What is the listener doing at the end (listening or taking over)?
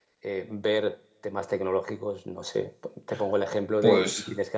listening